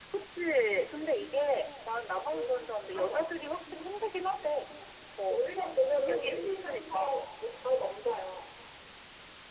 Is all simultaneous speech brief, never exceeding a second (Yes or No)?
No